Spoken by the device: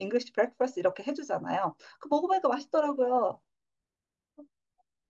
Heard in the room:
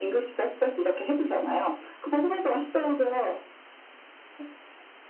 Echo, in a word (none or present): present